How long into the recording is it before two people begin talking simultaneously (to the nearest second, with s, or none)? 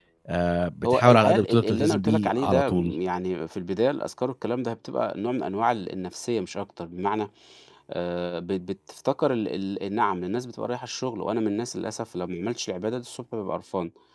1 s